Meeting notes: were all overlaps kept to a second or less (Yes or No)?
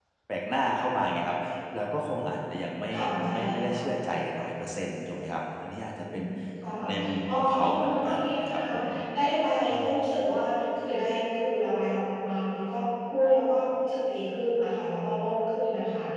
No